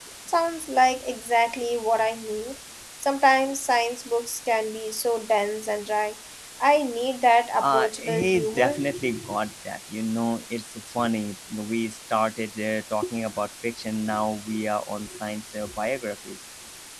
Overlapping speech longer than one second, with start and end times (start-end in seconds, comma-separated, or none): 7.6-8.8